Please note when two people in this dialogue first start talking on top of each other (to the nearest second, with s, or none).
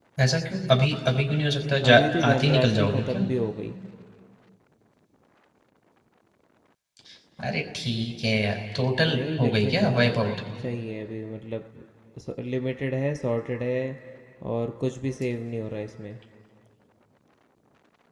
2 s